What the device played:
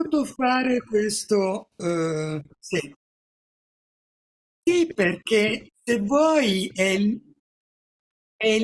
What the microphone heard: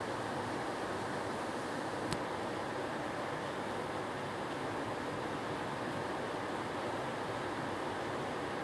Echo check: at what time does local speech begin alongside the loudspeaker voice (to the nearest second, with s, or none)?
none